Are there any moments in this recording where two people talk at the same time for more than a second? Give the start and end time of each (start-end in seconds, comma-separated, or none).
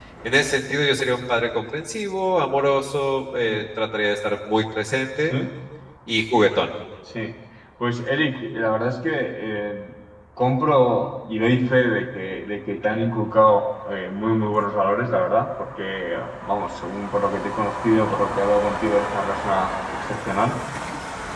none